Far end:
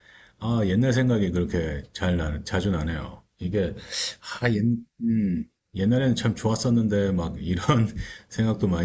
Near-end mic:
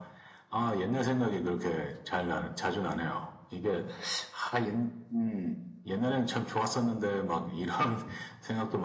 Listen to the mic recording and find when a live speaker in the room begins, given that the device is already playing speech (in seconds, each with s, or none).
none